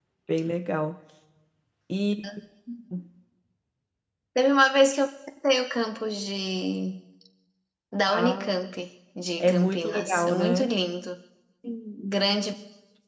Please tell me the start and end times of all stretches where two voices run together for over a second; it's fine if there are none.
9.4-10.7

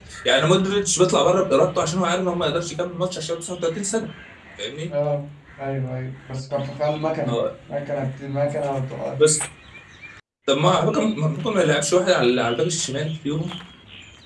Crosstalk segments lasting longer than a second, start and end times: none

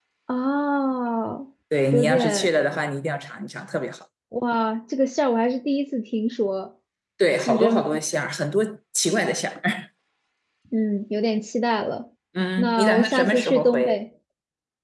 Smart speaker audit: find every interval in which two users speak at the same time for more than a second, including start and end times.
12.6-14.0

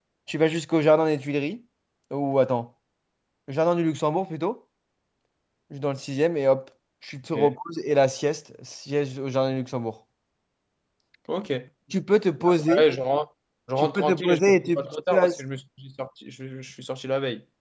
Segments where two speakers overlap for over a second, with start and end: 13.8-15.4

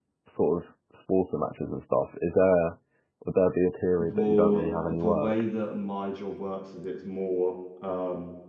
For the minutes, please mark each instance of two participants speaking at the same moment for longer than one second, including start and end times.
4.0-5.3

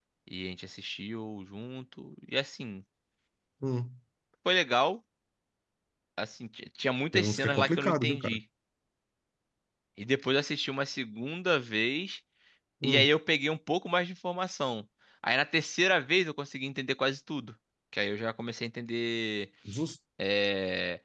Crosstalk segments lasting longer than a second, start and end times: 7.1-8.4

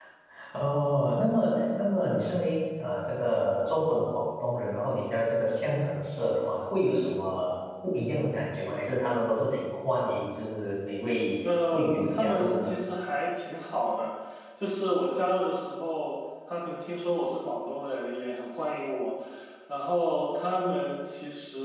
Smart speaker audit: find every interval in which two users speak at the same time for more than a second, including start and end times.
11.4-12.7

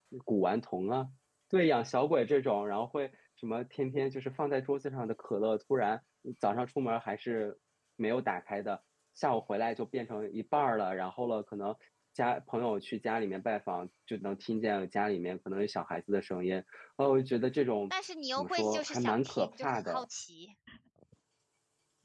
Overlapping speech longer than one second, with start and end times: 18.4-20.0

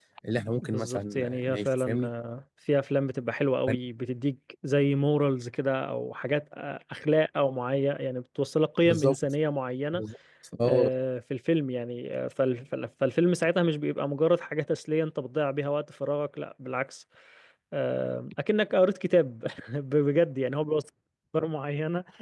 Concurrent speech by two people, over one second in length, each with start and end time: 0.6-2.1

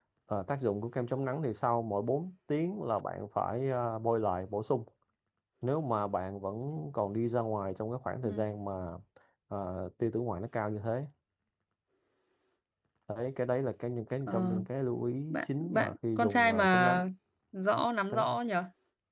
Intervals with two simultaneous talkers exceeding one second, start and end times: 15.3-17.1

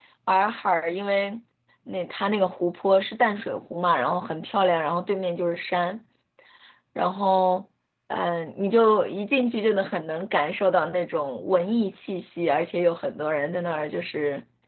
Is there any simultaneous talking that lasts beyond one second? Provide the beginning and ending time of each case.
none

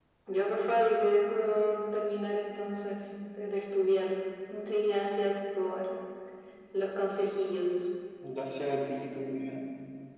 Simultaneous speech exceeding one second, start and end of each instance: none

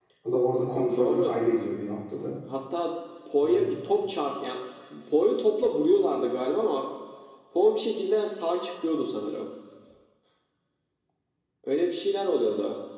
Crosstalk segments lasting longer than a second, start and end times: none

